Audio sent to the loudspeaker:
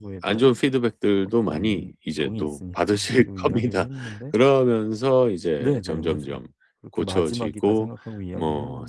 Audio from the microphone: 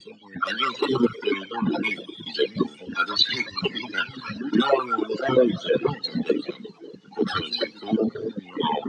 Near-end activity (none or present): none